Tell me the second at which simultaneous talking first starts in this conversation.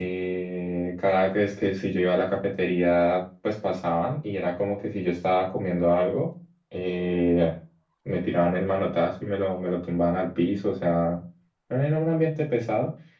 none

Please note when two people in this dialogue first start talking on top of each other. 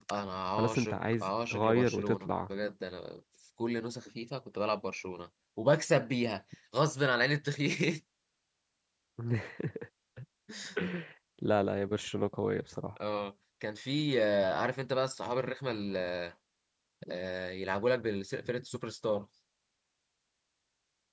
0.6 s

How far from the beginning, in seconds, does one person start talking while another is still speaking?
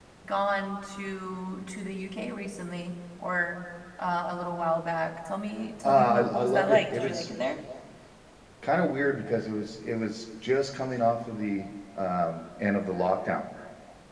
5.8 s

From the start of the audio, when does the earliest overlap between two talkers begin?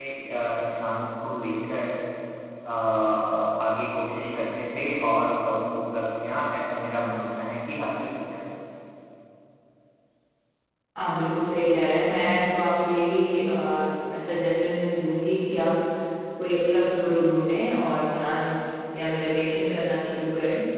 none

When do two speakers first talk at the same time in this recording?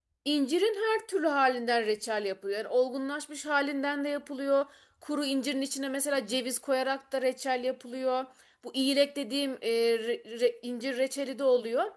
none

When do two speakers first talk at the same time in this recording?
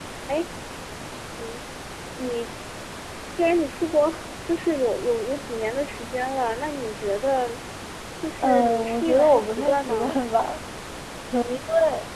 8.4 s

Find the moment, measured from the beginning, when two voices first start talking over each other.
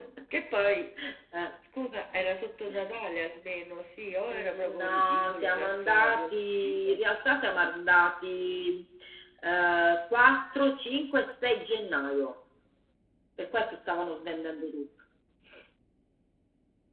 4.3 s

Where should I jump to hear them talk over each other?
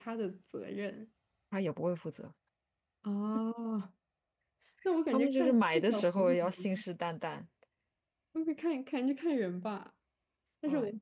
5.1 s

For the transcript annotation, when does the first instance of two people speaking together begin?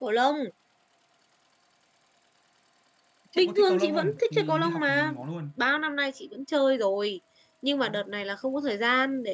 3.4 s

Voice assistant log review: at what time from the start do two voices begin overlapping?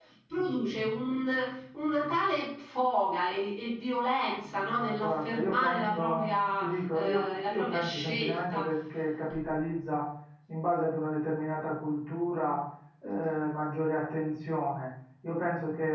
4.5 s

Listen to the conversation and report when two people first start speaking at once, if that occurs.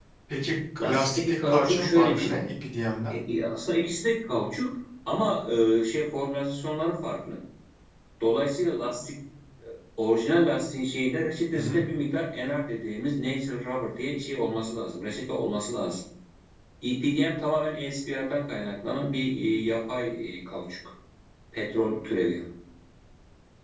0.8 s

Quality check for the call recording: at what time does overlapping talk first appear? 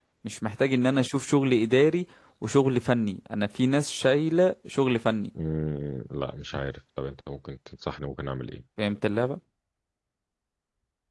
none

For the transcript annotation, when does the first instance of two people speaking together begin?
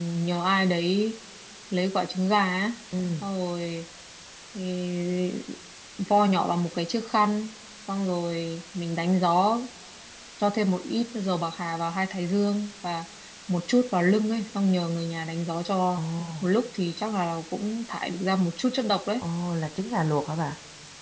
none

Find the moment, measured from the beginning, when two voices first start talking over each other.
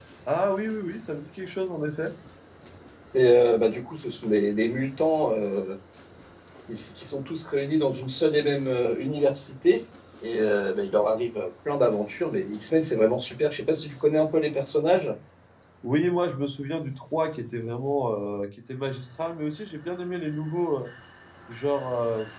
none

